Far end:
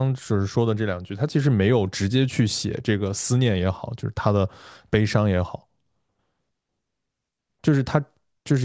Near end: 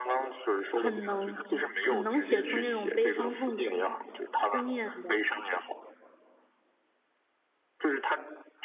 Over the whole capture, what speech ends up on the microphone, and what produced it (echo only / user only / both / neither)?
both